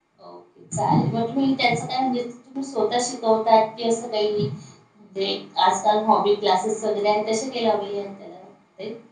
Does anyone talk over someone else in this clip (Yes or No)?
No